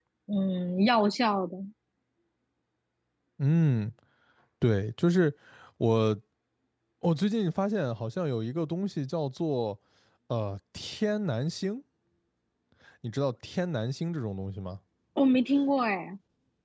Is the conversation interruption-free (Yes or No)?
Yes